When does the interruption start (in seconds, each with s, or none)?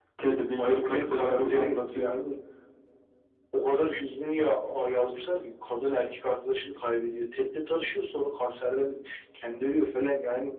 0.6 s